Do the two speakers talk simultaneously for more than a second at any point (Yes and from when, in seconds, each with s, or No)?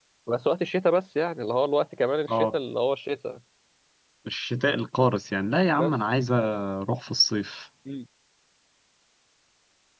No